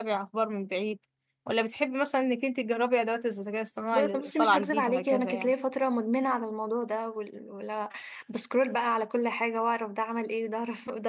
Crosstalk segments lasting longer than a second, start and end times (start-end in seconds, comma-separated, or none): 3.9-5.5